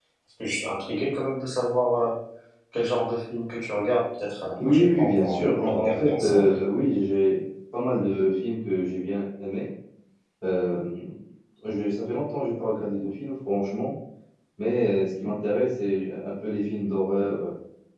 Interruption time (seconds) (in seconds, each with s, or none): 4.6 s